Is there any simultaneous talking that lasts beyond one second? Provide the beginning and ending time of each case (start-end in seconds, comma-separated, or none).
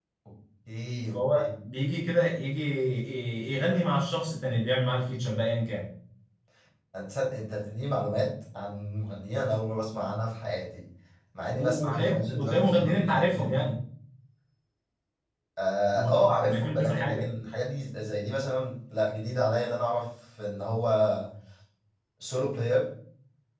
11.6-13.6, 15.9-17.3